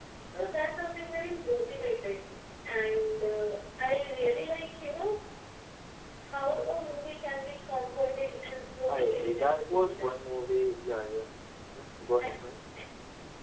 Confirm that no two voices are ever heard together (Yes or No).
No